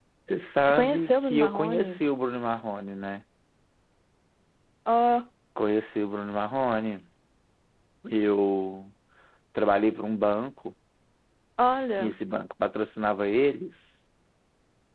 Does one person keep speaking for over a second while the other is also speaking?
Yes, from 0.7 s

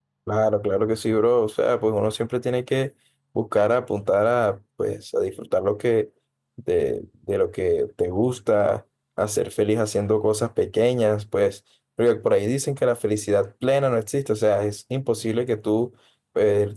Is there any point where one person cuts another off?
No

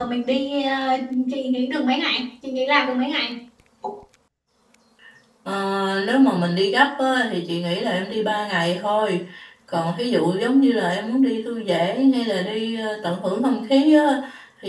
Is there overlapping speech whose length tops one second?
No

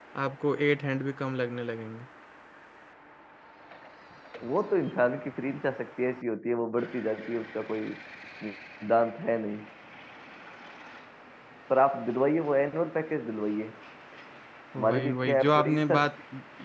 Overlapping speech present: Yes, from 14.8 s

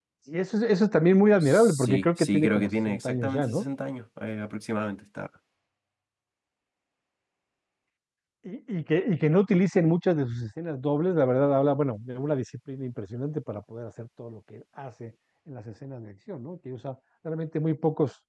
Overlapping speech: Yes, from 1.4 s

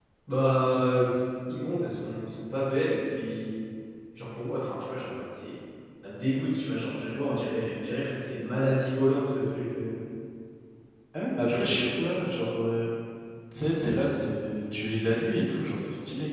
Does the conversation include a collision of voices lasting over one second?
No

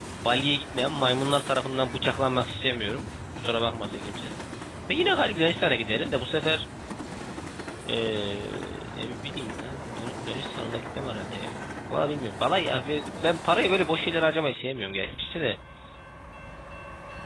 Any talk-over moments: No

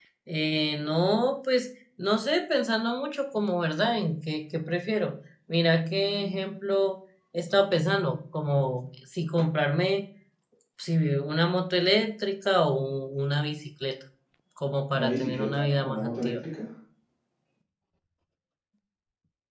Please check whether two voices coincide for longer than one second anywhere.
Yes, from 14.9 s

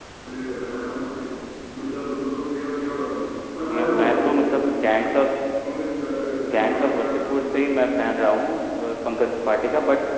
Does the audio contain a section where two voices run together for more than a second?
Yes, from 3.6 s

